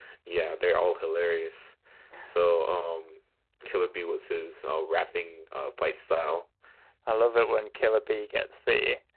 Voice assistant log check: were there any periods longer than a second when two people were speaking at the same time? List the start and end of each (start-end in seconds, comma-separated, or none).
none